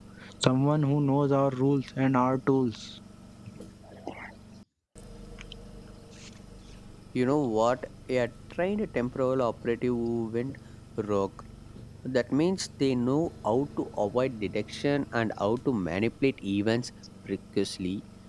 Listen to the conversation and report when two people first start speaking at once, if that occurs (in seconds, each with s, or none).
none